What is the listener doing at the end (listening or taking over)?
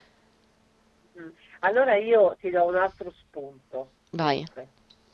listening